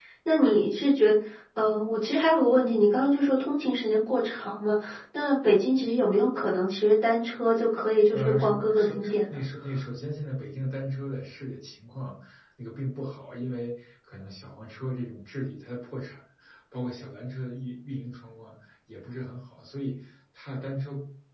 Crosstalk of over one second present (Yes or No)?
Yes